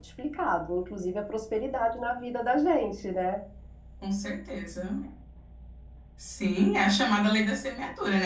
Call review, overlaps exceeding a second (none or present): none